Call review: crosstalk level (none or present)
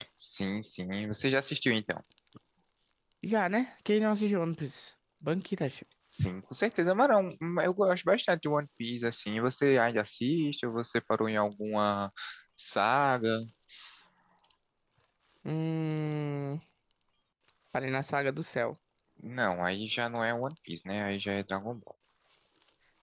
none